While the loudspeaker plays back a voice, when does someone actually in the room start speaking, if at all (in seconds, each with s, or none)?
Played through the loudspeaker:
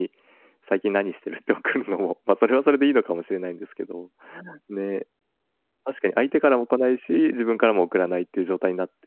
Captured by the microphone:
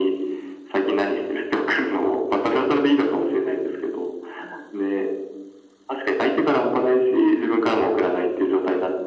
none